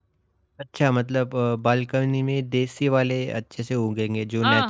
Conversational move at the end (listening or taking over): taking over